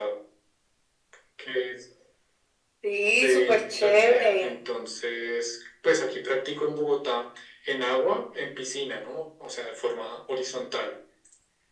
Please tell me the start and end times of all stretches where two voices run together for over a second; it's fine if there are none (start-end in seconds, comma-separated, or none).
3.2-4.5